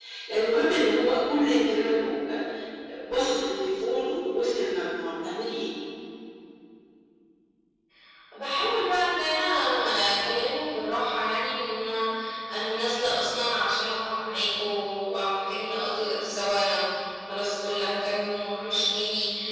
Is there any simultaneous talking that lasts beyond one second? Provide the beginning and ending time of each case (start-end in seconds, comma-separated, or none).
none